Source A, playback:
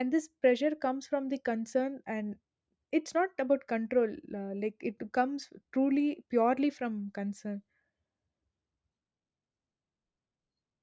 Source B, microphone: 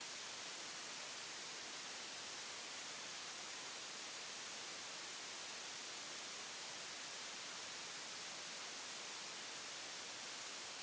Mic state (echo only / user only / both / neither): neither